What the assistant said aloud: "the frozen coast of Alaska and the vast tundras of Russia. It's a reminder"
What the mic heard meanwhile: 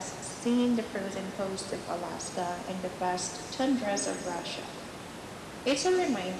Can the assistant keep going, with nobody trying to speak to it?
Yes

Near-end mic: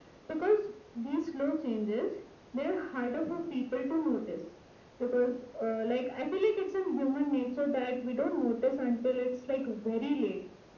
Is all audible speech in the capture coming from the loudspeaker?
Yes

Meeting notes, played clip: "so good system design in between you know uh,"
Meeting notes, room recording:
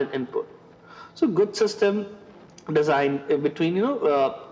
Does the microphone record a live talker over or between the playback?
No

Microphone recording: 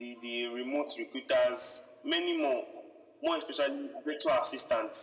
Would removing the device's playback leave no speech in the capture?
Yes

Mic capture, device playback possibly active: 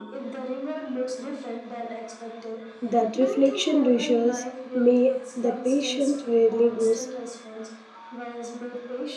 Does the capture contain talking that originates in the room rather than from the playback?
Yes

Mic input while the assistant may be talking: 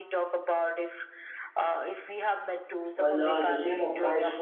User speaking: Yes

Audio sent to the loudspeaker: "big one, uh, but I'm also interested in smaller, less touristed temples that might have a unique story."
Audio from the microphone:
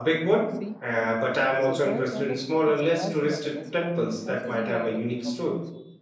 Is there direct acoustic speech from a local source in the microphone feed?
Yes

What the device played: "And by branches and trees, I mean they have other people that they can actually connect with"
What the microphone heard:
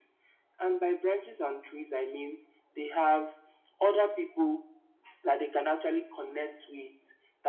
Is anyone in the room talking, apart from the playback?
No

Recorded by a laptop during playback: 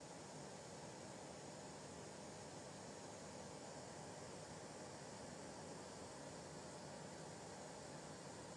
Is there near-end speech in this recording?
No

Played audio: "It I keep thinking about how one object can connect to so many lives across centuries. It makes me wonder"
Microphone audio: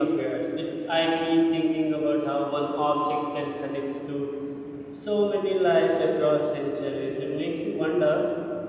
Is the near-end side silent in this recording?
Yes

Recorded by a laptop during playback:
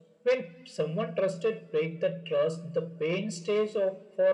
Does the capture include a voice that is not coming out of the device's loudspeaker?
No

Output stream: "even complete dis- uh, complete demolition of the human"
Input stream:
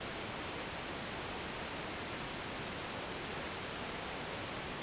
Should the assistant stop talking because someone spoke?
No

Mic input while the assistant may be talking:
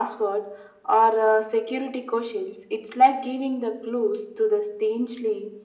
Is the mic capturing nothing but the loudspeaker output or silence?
Yes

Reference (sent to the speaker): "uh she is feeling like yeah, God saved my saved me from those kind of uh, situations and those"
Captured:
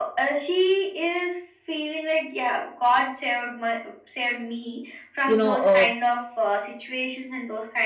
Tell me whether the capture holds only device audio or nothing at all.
No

